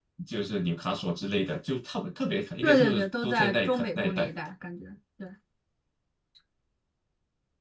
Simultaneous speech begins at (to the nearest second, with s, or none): 3 s